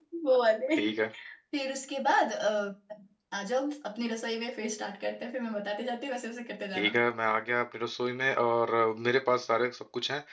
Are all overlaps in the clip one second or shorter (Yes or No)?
Yes